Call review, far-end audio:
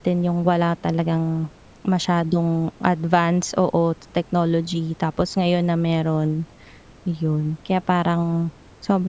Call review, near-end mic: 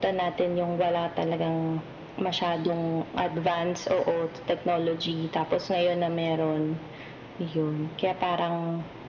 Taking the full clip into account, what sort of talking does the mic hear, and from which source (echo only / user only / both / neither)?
echo only